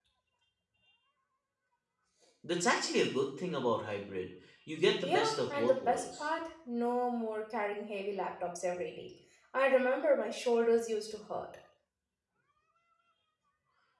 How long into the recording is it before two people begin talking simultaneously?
5.0 s

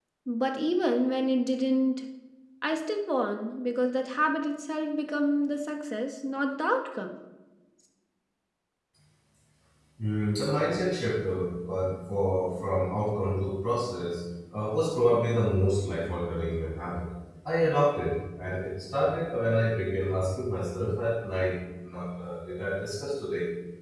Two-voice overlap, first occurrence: none

